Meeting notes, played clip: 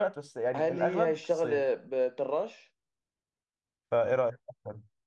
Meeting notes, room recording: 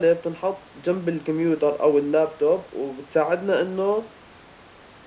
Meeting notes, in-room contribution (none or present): present